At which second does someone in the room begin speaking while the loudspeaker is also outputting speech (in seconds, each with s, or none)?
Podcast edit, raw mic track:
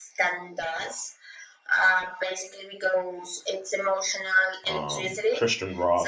4.6 s